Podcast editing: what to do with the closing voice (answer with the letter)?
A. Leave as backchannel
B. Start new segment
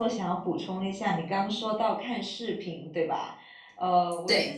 A